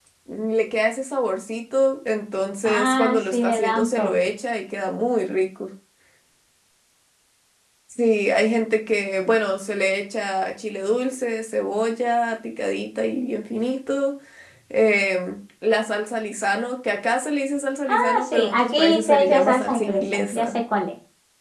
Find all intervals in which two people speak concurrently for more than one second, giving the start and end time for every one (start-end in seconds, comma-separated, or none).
2.6-4.1, 17.9-20.6